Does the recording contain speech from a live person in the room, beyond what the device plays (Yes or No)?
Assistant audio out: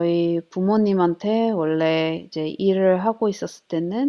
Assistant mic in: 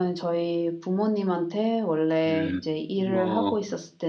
Yes